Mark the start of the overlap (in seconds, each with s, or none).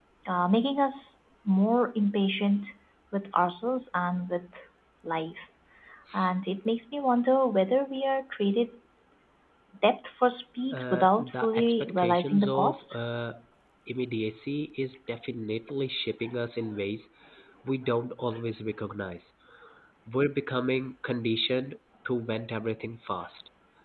10.7 s